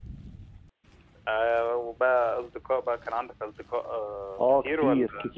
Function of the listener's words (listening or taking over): taking over